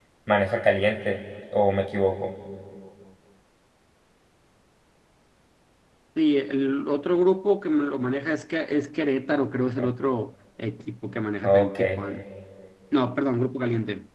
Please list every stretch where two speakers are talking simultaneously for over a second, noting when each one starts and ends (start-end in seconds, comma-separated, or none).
none